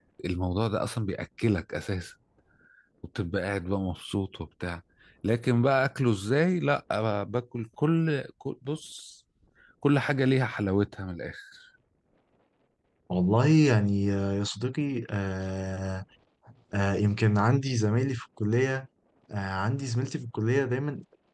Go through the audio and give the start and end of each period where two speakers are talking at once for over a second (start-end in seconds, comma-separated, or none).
none